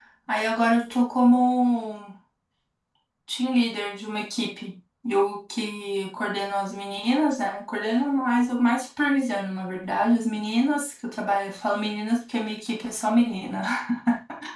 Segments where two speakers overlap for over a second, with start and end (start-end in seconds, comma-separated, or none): none